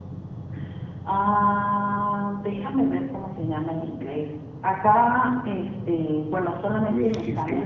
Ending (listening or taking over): taking over